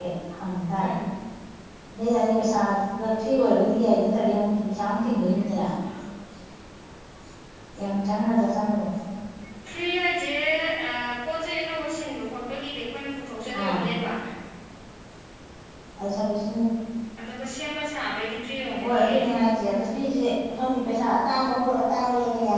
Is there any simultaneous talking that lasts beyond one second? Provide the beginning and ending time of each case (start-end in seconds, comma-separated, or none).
none